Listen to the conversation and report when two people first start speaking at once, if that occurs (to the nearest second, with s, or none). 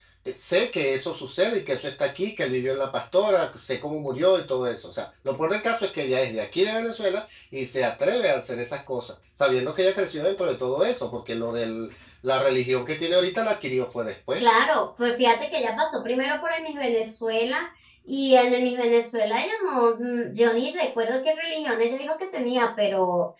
none